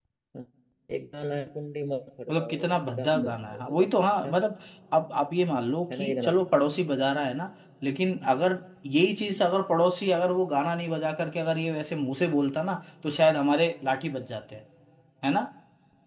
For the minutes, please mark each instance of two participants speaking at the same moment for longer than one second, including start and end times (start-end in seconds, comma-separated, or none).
2.3-3.9